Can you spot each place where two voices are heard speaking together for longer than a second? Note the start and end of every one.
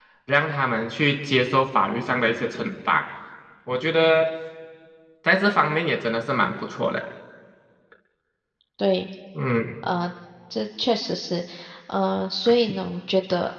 none

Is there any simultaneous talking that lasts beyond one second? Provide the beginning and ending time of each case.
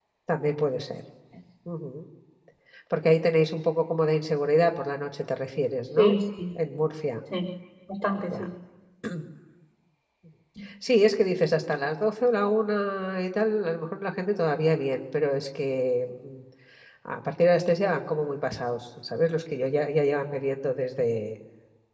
none

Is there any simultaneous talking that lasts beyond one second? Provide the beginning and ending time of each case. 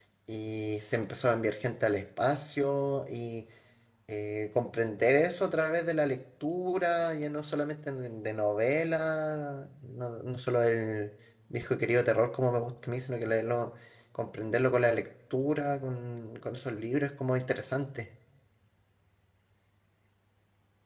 none

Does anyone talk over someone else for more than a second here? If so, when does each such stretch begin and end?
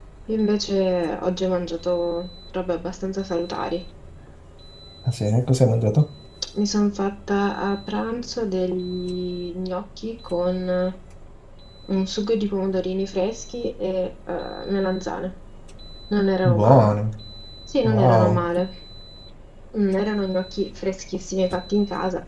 none

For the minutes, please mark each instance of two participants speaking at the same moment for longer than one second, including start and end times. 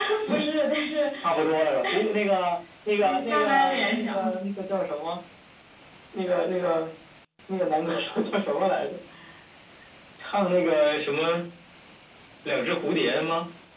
3.0-4.3

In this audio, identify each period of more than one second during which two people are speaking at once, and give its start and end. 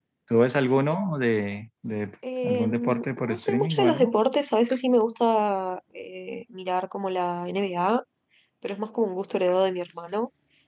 2.4-4.2

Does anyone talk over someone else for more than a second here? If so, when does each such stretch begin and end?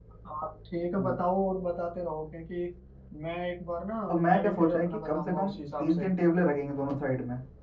4.1-6.0

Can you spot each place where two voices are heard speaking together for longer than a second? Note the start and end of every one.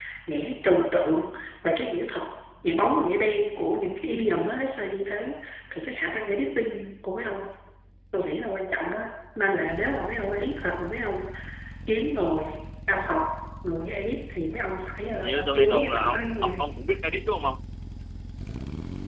15.1-16.6

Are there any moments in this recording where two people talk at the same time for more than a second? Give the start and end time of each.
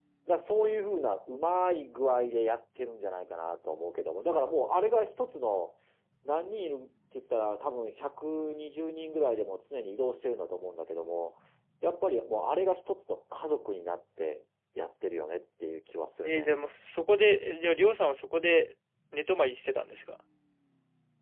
none

